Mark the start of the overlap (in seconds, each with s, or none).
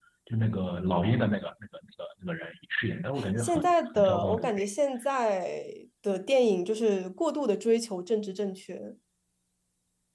3.2 s